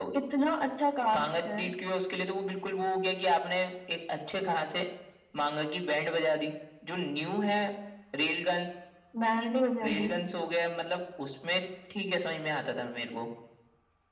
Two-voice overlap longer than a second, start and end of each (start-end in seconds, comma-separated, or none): none